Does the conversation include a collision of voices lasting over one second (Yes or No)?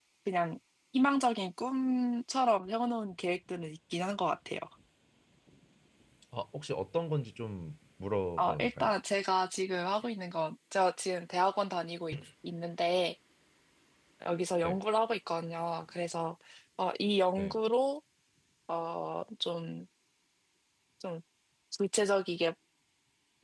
No